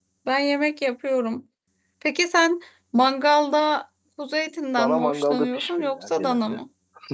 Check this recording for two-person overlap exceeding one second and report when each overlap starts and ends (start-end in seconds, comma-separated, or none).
4.8-6.6